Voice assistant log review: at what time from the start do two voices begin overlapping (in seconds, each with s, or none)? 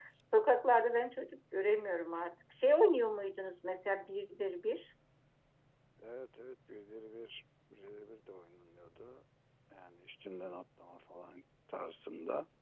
none